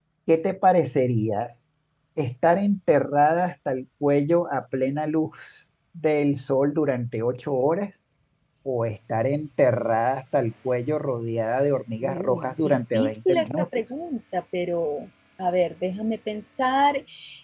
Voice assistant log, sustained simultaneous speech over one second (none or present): present